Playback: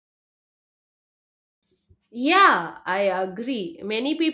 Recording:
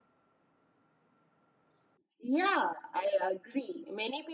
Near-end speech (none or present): none